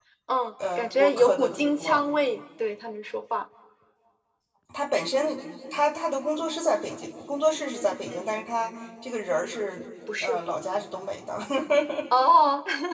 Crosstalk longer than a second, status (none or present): present